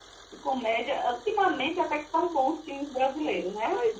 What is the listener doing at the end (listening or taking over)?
taking over